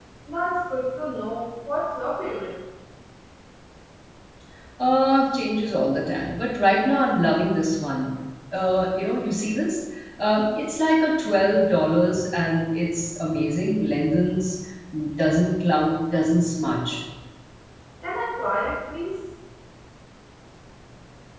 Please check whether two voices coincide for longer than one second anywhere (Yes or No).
No